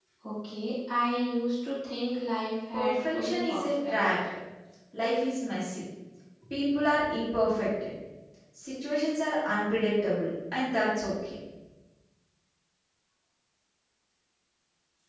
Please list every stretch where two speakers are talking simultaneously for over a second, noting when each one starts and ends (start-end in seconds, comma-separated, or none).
2.7-4.0